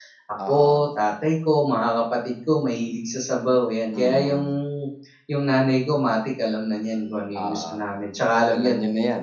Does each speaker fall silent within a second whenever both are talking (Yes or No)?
Yes